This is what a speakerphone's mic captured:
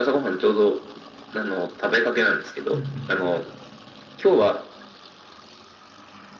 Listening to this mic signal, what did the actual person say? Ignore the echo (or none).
うんうん